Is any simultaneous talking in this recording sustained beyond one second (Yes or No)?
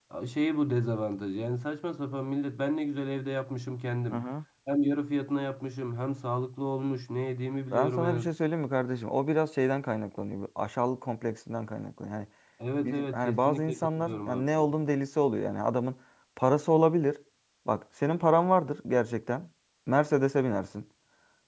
Yes